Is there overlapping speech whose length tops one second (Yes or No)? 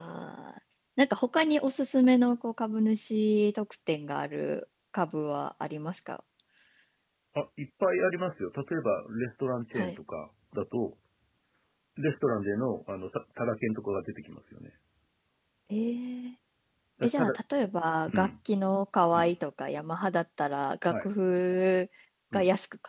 No